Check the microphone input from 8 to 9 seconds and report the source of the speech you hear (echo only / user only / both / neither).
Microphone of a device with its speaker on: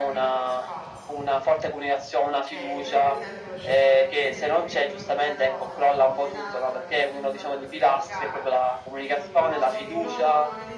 both